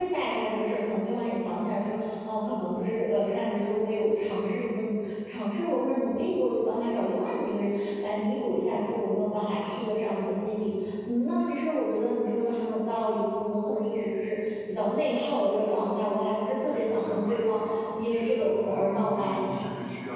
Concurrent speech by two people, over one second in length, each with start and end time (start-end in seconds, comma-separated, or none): 16.7-19.4